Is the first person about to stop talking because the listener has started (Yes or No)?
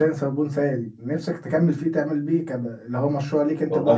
Yes